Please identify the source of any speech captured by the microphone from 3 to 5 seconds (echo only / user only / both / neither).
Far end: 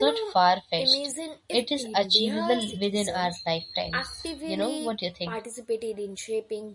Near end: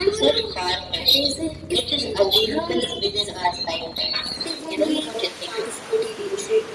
echo only